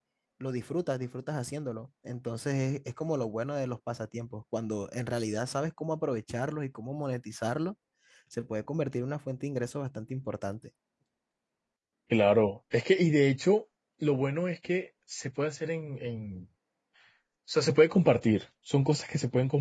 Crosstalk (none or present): none